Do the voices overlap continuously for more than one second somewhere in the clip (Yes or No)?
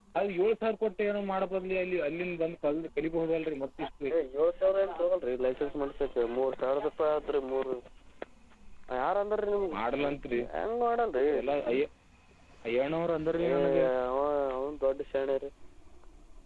No